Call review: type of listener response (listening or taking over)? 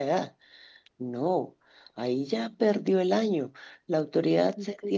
listening